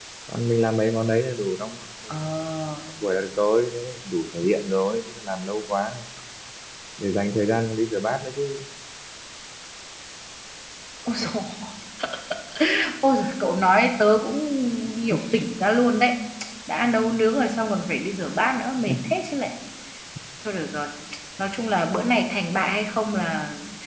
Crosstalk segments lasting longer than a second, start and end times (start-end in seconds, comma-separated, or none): none